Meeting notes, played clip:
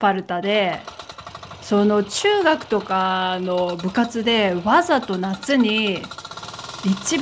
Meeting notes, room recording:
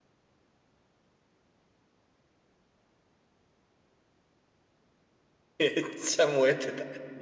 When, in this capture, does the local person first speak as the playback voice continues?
5.6 s

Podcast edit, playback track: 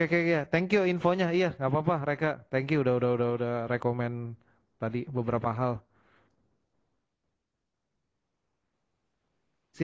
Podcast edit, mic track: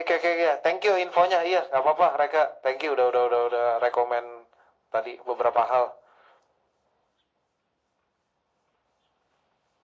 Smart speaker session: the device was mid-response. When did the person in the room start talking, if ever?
none

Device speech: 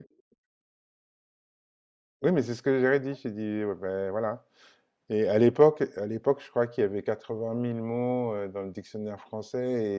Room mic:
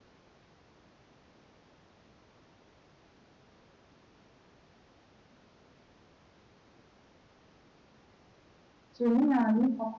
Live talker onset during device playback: 9.0 s

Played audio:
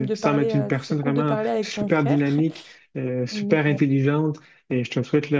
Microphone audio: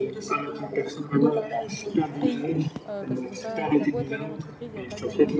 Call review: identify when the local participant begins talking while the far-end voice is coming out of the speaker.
2.2 s

